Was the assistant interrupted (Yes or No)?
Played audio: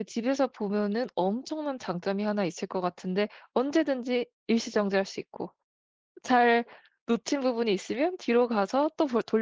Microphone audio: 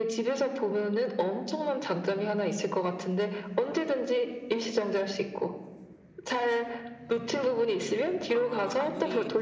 Yes